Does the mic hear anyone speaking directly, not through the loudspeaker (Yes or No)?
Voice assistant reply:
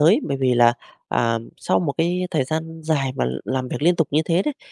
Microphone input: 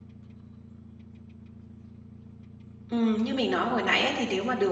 Yes